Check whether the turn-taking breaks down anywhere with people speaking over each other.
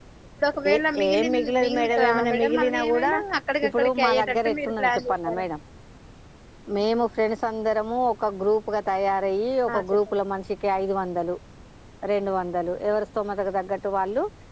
Yes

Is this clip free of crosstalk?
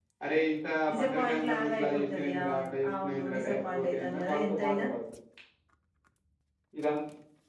No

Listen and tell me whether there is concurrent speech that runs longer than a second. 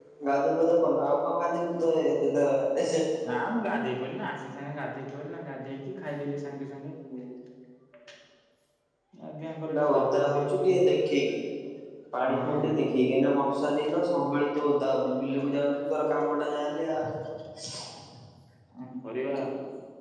Yes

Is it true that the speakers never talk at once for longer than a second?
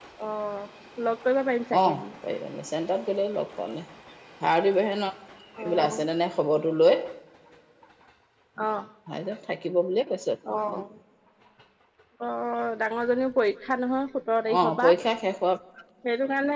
Yes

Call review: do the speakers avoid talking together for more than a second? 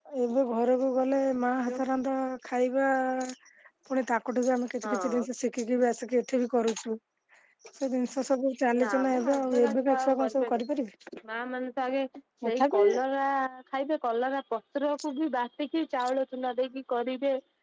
No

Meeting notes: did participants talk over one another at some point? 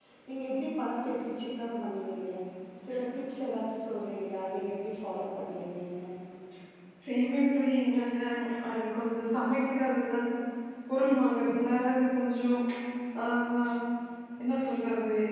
No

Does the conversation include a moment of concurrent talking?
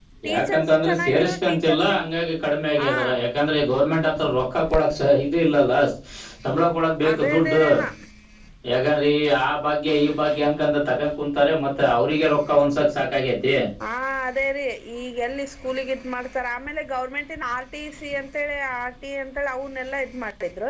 Yes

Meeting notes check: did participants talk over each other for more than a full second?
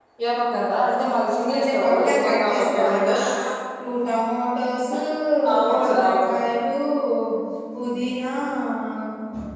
Yes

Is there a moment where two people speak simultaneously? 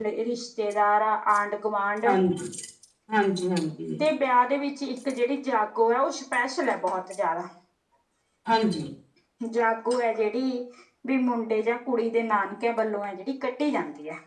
No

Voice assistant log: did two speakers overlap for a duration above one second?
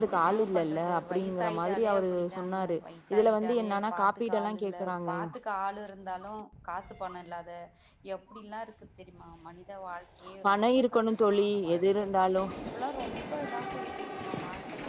Yes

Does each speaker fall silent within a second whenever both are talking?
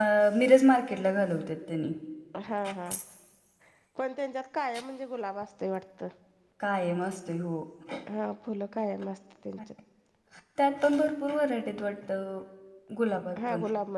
Yes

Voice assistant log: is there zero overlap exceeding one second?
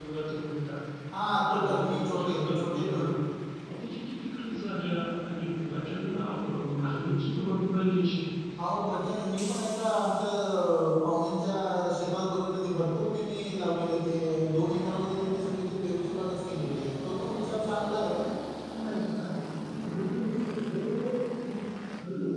No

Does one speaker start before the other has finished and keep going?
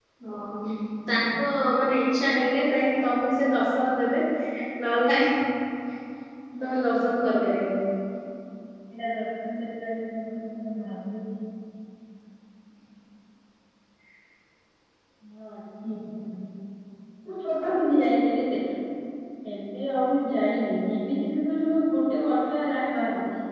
No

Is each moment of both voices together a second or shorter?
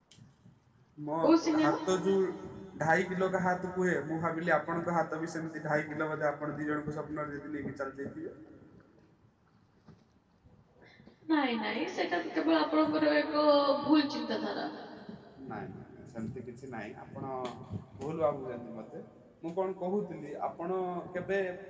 Yes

